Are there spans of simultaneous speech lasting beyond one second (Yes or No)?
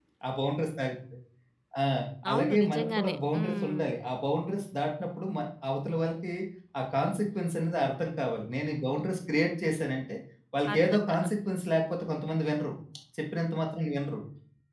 Yes